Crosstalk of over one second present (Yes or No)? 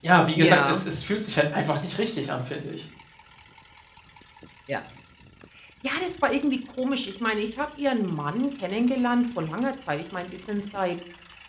No